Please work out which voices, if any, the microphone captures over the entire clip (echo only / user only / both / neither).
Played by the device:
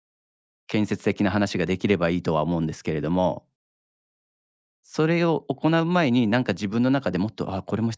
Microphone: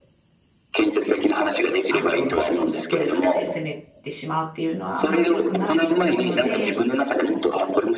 both